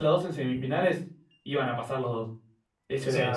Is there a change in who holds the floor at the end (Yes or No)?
Yes